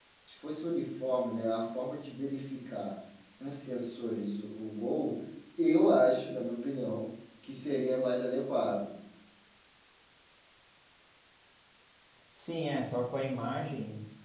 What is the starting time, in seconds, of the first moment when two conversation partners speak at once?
none

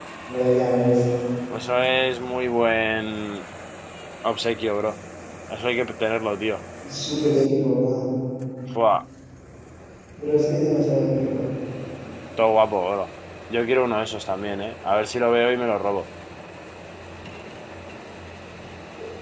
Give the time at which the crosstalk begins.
none

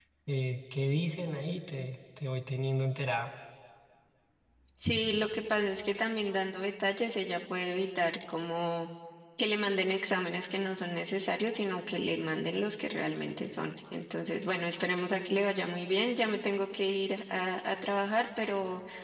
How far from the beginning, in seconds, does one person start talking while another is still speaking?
none

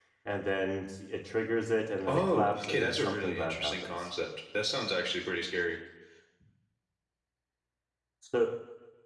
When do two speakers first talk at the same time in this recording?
2.1 s

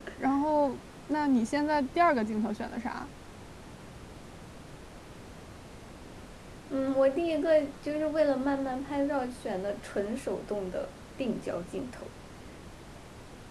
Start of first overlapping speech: none

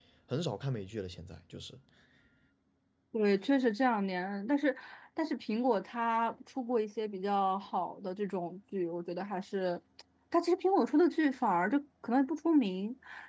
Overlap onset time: none

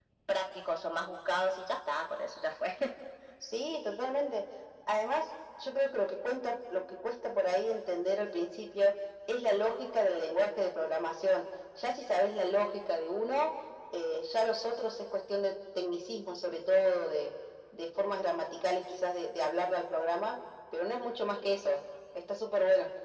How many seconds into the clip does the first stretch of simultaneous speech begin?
none

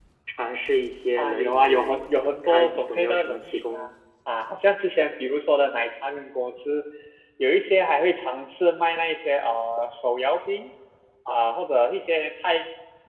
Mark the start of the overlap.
1.2 s

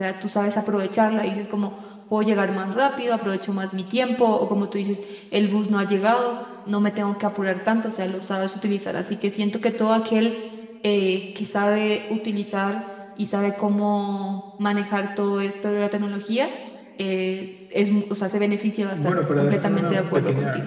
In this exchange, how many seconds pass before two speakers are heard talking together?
18.9 s

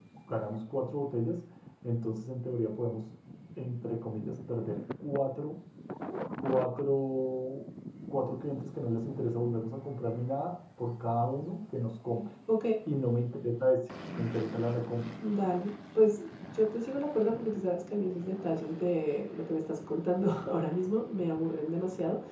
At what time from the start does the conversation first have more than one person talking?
none

